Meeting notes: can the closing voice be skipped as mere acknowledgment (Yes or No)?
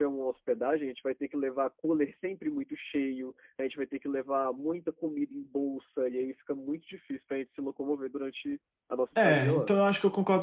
No